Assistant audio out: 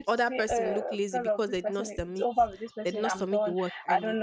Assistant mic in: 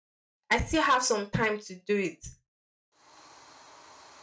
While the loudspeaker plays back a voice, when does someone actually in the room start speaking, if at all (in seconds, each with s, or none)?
0.5 s